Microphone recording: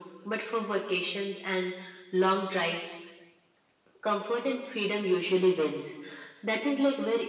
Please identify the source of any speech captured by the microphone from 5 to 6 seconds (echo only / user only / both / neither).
echo only